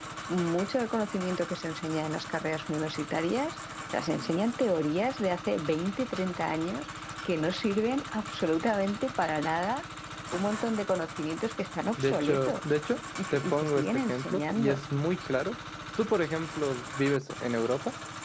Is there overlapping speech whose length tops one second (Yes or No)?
Yes